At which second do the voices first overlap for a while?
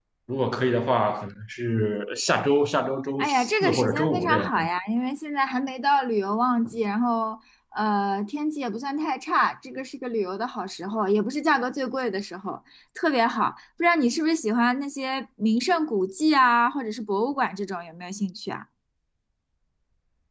3.2 s

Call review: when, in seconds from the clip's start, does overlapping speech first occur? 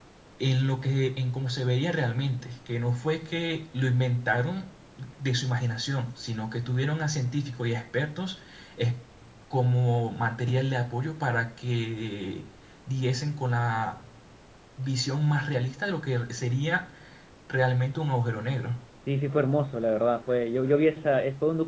none

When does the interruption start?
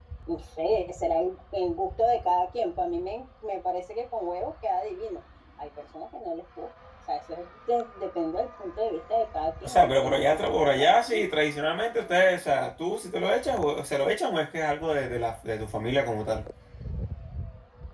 9.6 s

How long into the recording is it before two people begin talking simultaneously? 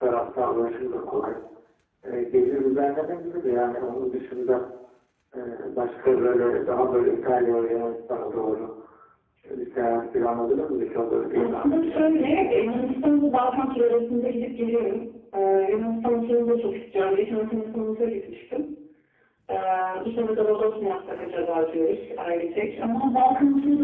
11.3 s

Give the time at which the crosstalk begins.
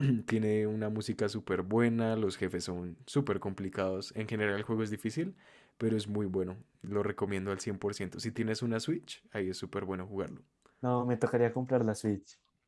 none

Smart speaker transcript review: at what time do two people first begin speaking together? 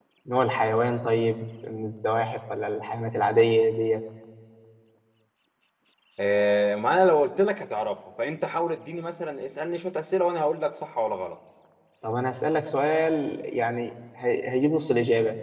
none

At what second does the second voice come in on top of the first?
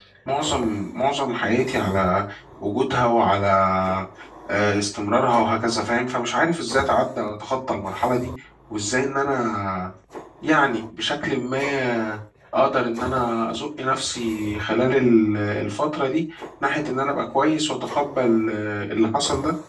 none

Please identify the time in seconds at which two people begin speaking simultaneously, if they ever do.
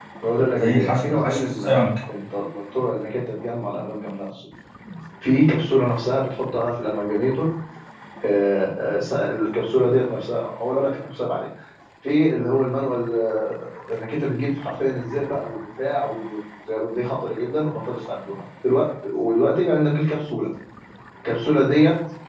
0.6 s

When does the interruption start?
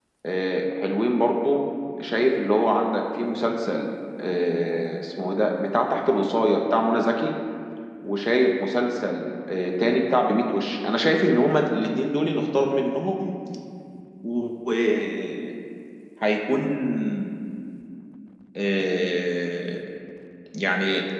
none

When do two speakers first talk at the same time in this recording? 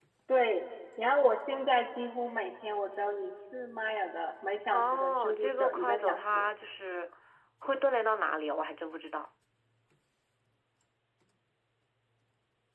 4.7 s

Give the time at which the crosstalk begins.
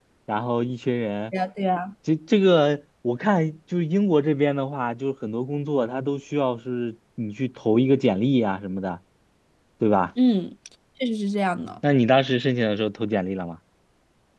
none

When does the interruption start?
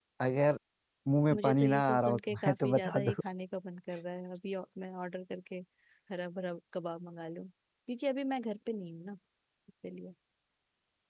1.3 s

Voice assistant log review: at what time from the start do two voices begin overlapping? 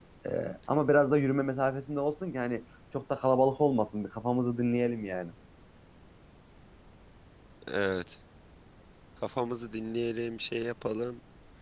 none

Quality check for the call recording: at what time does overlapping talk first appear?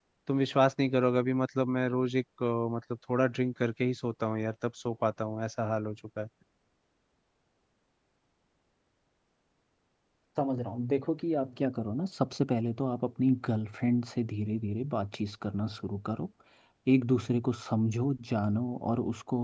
none

